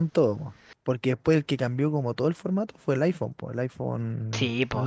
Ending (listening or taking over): taking over